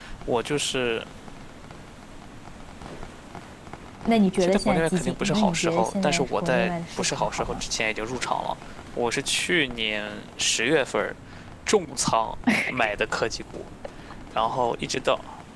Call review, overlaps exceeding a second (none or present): present